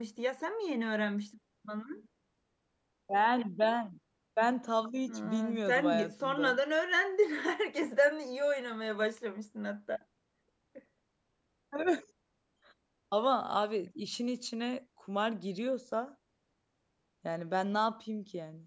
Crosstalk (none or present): present